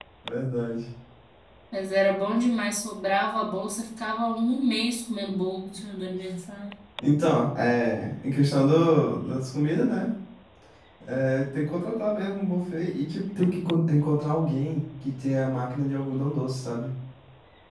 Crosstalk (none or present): none